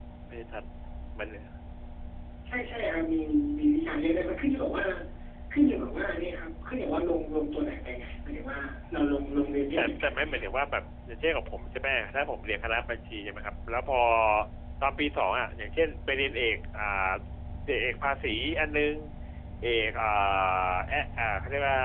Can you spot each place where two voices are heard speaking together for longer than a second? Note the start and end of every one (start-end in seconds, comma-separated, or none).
9.3-10.5